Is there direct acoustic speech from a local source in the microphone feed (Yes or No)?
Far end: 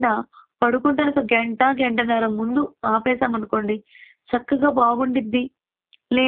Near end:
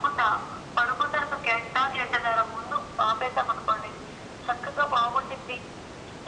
No